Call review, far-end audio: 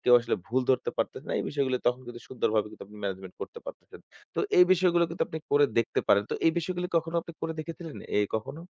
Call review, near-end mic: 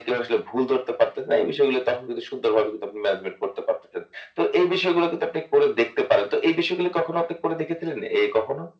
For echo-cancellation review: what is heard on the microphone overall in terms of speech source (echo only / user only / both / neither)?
echo only